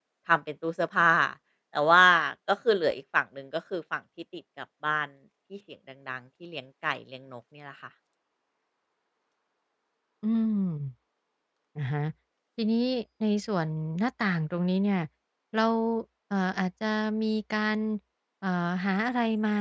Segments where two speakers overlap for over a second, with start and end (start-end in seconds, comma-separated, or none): none